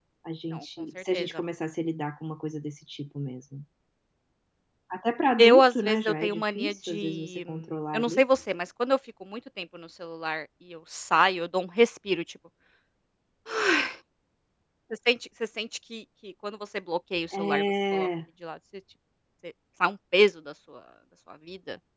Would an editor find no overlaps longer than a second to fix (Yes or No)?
No